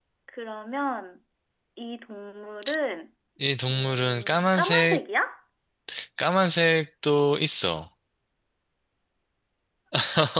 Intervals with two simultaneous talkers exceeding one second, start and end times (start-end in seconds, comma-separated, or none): 3.7-5.0